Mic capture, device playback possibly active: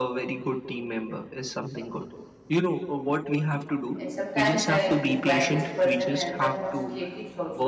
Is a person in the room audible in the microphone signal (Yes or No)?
Yes